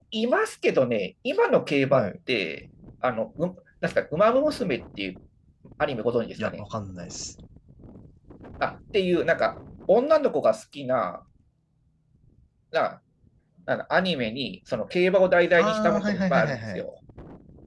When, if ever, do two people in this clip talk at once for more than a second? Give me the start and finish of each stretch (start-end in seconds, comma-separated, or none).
15.6-16.8